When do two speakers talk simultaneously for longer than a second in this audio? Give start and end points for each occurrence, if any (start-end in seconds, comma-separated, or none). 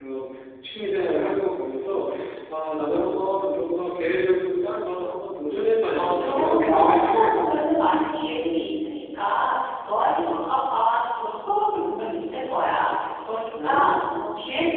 5.9-7.6